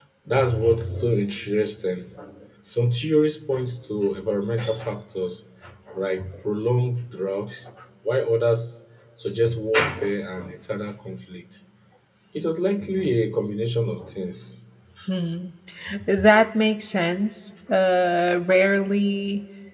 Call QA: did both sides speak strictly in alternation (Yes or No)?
Yes